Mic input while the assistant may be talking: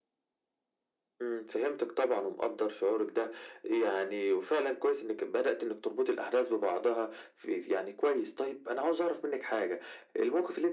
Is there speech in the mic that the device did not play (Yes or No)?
No